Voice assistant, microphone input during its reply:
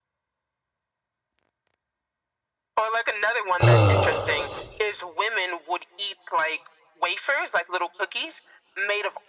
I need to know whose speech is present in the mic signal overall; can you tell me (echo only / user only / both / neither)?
both